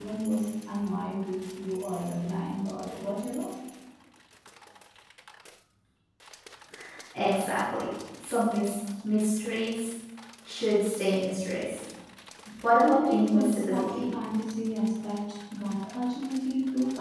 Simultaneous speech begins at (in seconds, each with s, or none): 12.8 s